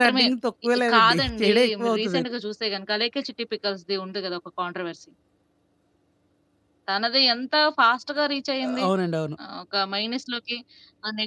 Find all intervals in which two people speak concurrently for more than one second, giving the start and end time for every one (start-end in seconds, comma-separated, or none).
0.9-2.3